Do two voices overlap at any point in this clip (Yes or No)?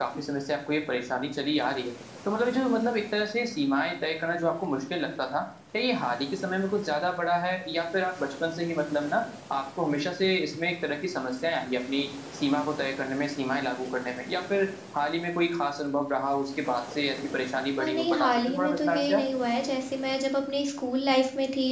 Yes